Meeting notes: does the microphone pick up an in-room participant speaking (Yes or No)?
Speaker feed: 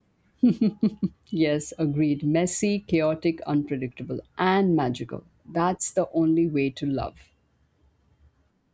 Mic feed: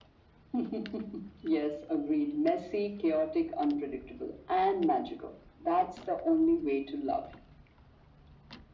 No